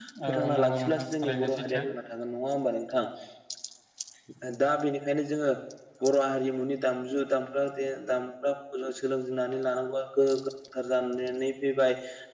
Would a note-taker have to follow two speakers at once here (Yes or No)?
Yes